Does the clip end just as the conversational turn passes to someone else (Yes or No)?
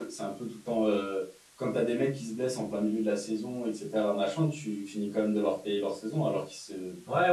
Yes